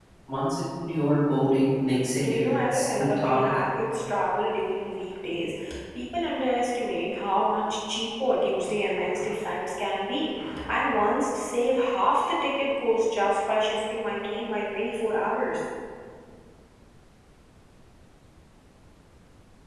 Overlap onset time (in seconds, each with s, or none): 2.2 s